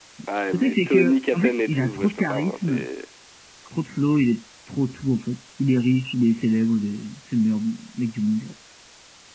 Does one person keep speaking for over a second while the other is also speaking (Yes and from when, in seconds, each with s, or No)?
Yes, from 0.5 s